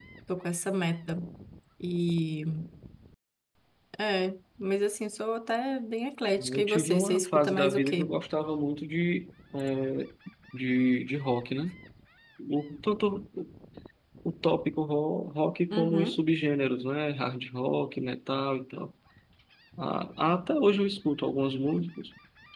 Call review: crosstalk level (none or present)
present